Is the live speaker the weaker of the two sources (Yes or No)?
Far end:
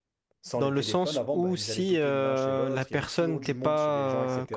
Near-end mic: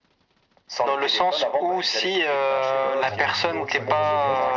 Yes